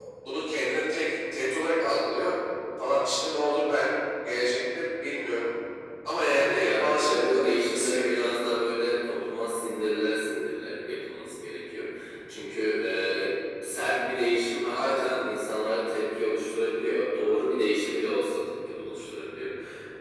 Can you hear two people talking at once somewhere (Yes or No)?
Yes